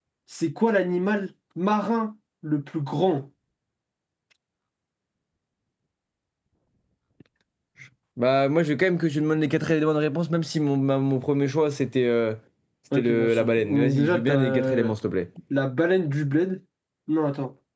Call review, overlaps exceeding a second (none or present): present